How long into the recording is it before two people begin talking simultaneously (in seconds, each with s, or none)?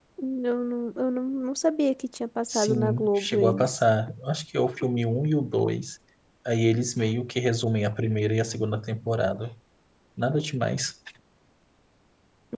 2.5 s